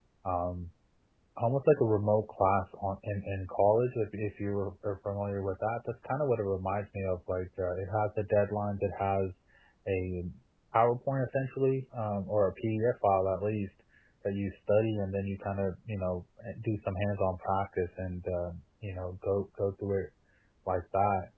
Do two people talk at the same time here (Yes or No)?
No